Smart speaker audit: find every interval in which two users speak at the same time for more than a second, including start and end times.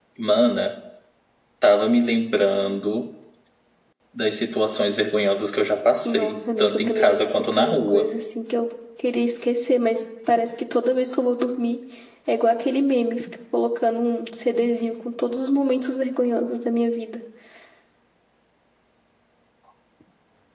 6.0-8.1

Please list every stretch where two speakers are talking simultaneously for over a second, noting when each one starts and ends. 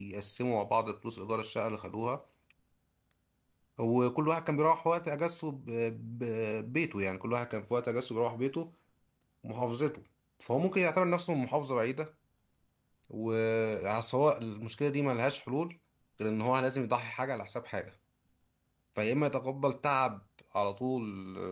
none

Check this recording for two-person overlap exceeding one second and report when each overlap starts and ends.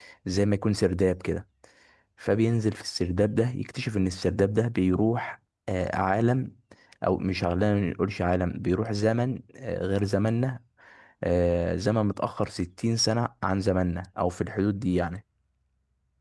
none

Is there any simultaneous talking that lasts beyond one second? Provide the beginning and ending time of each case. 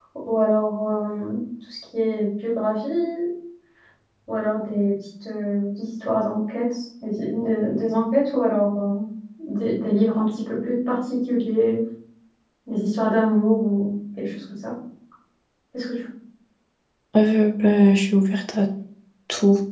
none

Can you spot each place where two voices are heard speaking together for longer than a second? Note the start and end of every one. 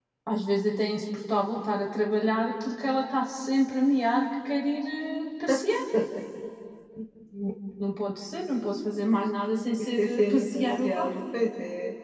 9.8-11.1

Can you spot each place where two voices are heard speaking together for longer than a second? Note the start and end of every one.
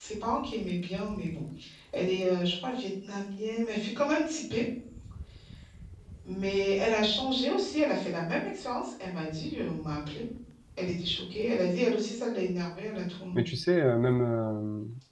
none

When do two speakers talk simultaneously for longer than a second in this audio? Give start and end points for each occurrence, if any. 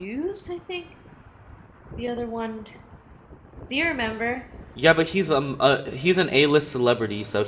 none

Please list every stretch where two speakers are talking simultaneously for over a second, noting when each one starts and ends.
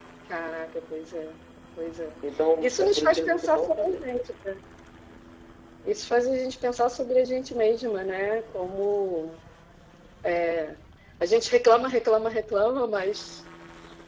2.6-4.0

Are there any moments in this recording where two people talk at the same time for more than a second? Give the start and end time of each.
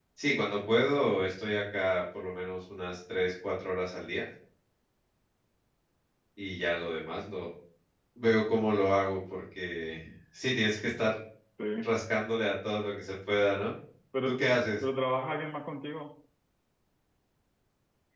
none

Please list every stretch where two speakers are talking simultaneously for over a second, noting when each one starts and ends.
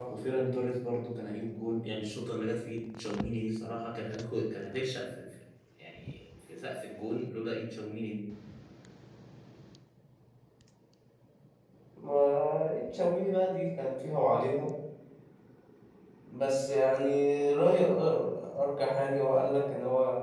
none

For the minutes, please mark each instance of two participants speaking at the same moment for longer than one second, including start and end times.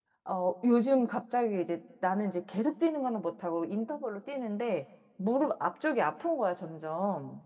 none

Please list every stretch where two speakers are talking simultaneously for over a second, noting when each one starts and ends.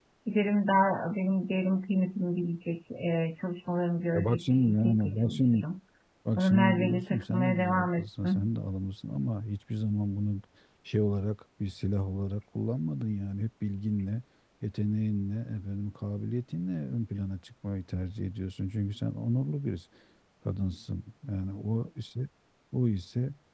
4.1-5.6, 6.4-8.5

